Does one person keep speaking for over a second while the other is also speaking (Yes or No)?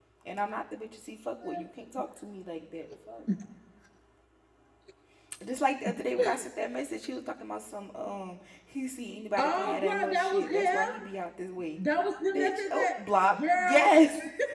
Yes